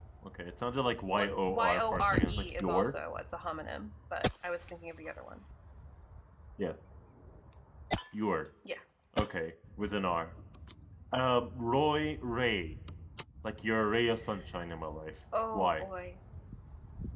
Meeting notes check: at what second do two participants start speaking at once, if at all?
1.2 s

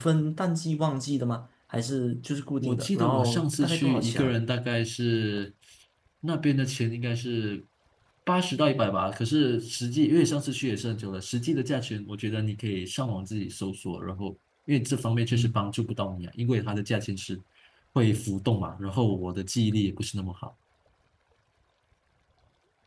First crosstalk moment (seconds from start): 2.6 s

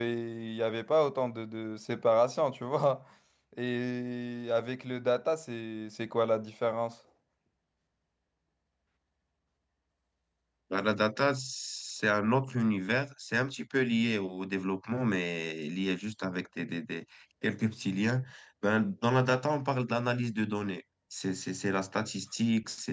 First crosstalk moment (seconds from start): none

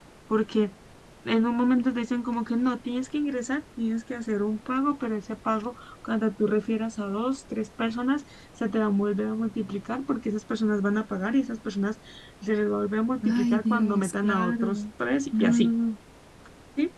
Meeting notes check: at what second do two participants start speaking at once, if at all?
13.2 s

